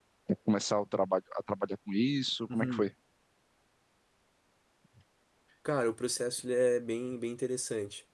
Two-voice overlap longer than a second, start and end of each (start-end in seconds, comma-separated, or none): none